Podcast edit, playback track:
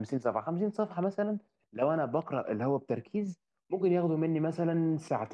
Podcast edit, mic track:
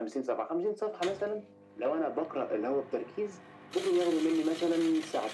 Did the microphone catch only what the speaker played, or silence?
Yes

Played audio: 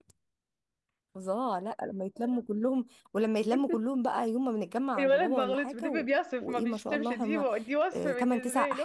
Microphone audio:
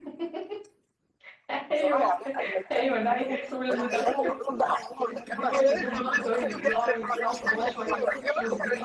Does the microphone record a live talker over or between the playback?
Yes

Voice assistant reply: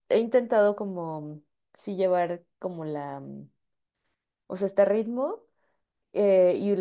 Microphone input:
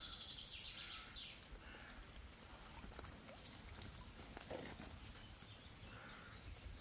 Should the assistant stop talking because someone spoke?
No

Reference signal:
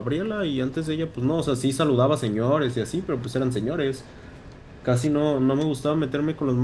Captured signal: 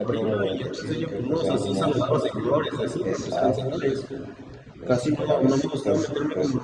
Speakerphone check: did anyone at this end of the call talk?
Yes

